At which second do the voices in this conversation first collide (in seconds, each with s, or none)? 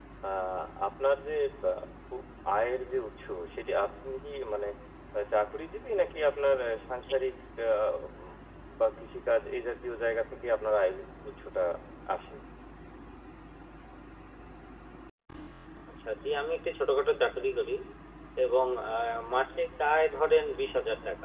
none